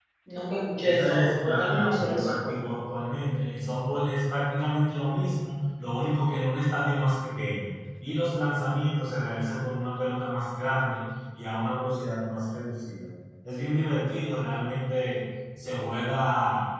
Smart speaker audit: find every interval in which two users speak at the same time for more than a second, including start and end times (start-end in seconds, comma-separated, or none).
0.8-2.5